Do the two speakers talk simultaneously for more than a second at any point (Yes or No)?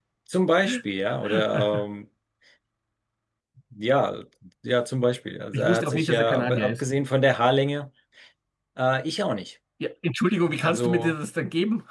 Yes